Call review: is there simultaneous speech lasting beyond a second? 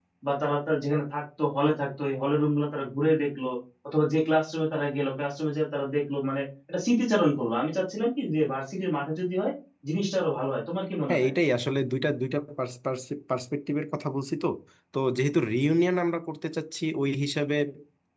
No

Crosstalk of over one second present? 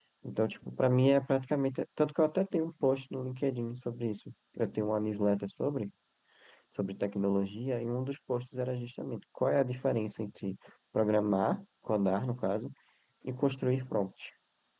No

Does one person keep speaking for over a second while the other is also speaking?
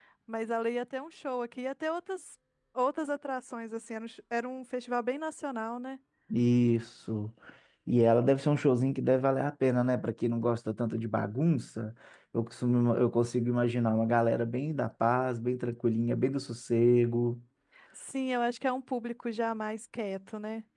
No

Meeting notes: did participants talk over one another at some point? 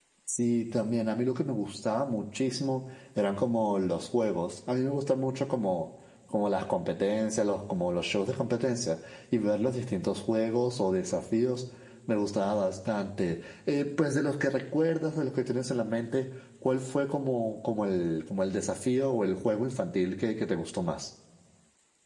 No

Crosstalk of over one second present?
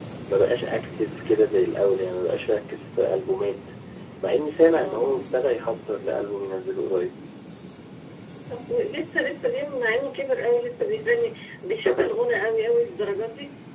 No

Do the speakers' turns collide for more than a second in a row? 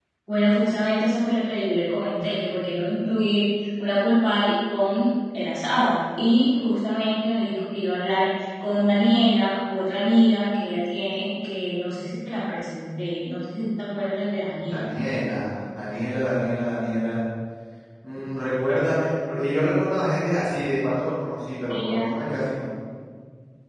No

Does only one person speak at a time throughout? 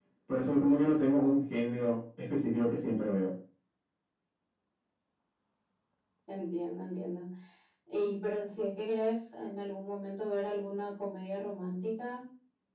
Yes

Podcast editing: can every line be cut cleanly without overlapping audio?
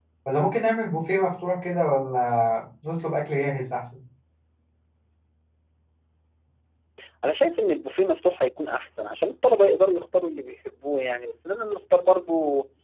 Yes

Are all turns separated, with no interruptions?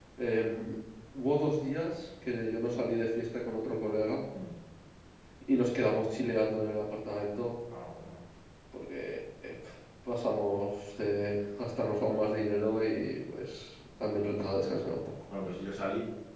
Yes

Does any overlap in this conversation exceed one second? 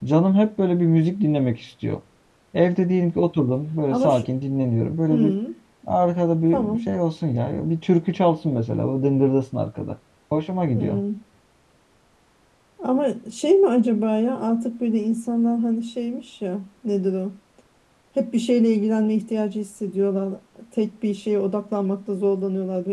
No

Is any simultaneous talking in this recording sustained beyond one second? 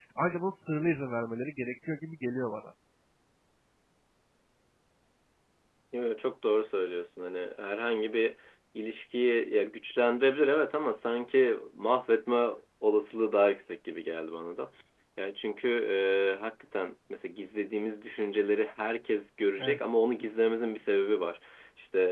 No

